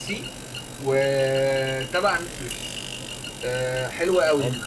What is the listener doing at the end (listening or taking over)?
listening